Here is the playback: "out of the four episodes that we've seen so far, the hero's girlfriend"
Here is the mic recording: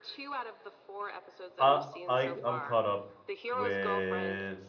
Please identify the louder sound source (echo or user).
user